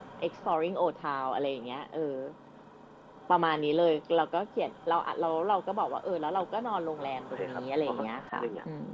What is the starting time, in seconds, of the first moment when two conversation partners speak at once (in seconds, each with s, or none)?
7.0 s